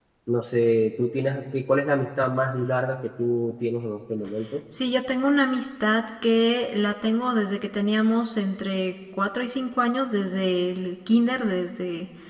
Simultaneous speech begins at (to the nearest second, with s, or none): none